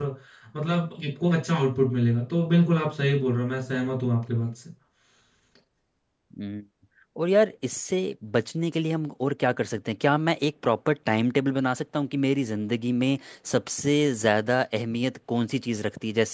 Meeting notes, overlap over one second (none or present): none